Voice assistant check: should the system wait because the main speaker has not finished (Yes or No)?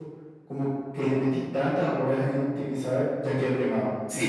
No